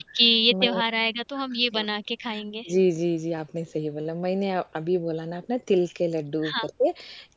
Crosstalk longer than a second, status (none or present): none